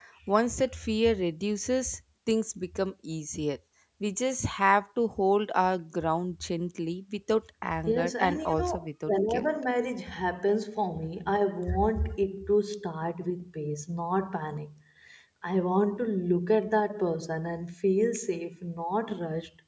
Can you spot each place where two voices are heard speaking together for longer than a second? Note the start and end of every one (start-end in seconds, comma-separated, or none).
7.9-9.5